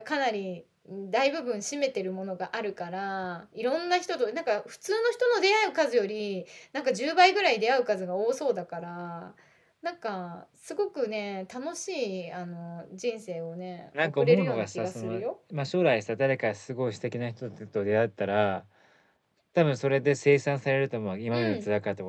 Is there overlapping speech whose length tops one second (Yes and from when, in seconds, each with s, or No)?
Yes, from 14.0 s